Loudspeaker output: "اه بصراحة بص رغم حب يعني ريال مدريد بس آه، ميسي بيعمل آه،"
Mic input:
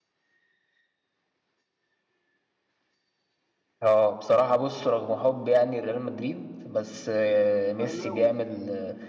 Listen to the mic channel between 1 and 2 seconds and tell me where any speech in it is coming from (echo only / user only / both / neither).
neither